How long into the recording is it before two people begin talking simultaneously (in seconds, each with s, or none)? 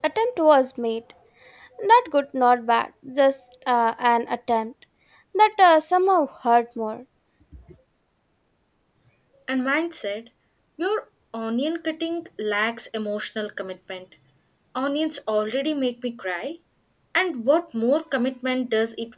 none